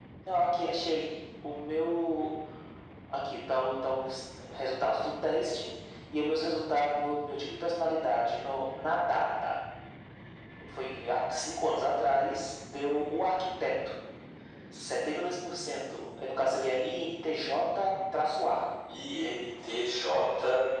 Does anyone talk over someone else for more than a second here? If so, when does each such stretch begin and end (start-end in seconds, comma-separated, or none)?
none